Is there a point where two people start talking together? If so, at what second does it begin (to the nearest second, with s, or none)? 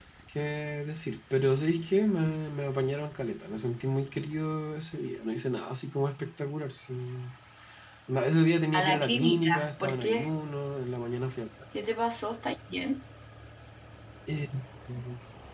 9 s